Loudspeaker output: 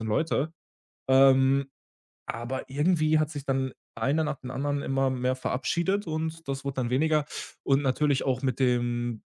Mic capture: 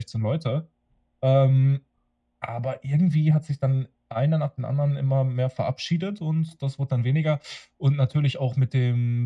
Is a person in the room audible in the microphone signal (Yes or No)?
No